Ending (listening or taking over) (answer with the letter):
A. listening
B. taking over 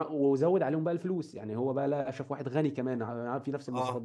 A